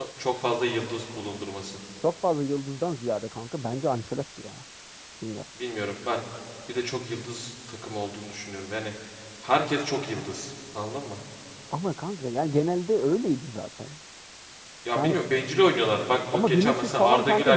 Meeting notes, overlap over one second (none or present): present